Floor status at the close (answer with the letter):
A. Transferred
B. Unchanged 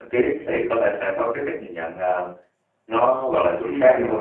A